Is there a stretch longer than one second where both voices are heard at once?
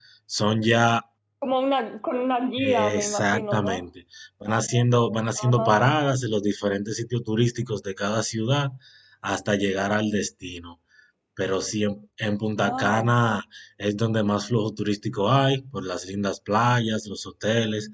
Yes, from 2.6 s

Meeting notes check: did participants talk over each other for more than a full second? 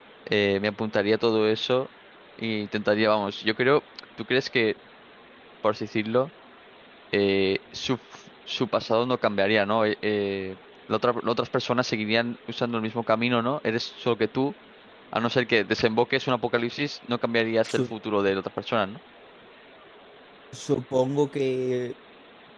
No

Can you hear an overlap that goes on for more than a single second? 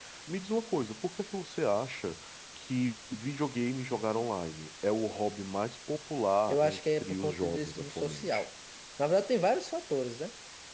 Yes, from 6.5 s

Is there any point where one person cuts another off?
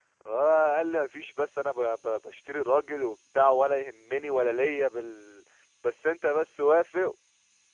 No

